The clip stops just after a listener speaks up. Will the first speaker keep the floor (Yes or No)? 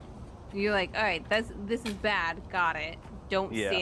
Yes